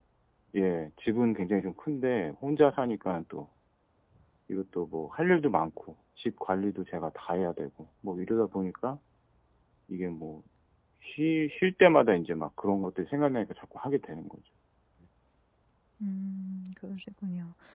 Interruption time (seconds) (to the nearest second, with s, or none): none